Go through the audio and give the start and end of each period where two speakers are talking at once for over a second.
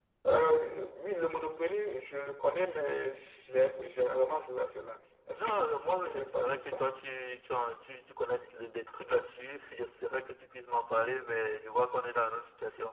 5.4-6.8

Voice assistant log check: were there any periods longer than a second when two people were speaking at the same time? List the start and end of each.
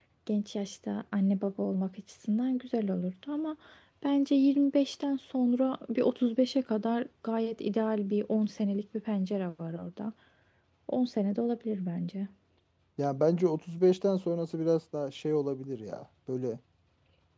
none

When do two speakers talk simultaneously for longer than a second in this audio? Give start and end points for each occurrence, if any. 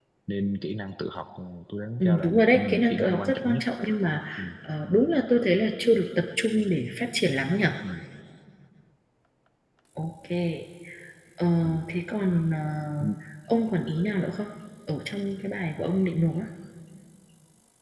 2.0-3.6

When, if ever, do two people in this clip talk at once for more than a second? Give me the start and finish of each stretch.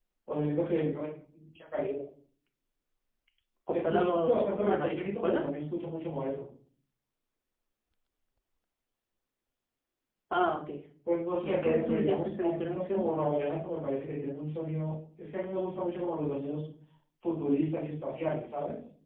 3.7-5.4, 11.4-13.0

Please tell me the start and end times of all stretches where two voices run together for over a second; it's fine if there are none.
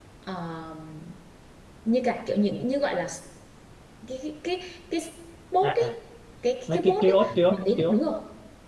6.7-8.0

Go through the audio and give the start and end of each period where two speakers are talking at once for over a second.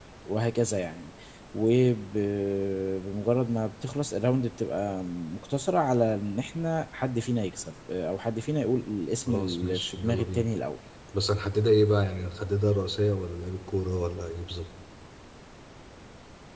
9.3-10.5

